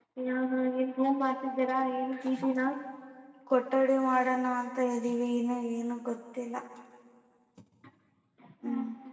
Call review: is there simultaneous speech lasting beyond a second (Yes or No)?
No